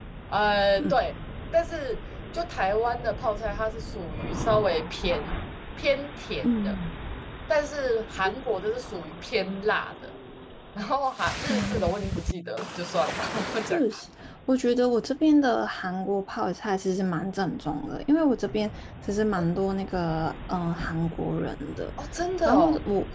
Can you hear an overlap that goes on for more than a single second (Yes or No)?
No